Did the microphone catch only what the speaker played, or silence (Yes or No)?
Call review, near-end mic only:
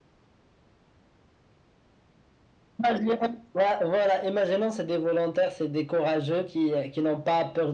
Yes